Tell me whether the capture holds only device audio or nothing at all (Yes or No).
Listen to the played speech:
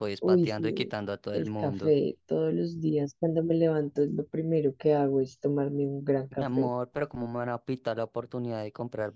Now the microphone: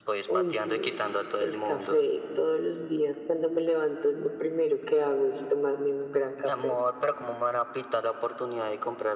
Yes